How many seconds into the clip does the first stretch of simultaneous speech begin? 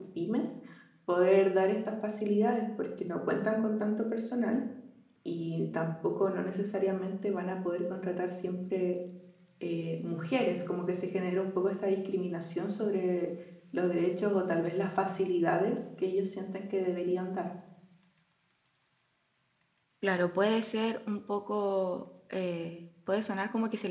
none

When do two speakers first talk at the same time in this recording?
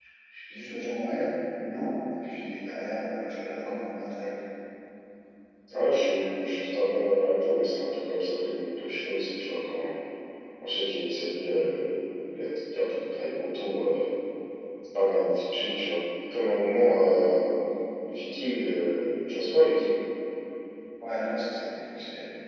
none

